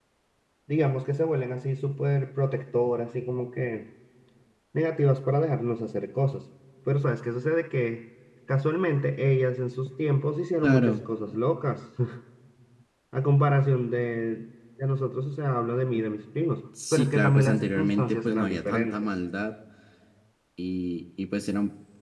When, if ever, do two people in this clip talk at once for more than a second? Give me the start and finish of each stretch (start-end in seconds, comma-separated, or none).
16.9-19.1